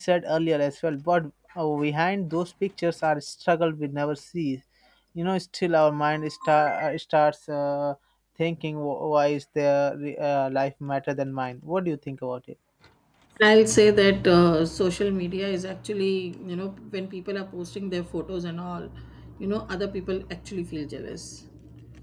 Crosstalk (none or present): none